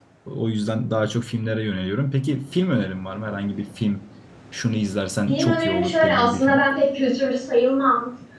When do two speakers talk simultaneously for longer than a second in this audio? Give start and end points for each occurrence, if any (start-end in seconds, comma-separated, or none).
5.3-6.6